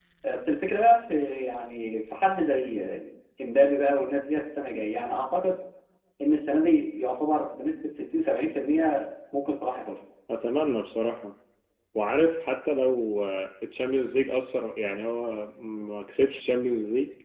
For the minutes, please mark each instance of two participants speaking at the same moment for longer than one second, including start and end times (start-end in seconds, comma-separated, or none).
none